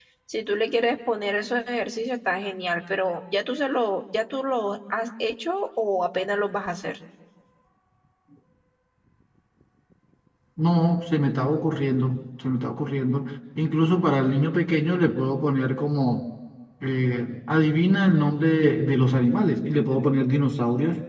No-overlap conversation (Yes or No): Yes